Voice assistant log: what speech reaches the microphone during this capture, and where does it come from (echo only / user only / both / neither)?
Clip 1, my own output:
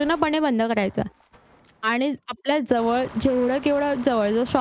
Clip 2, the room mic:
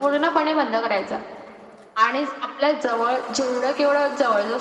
echo only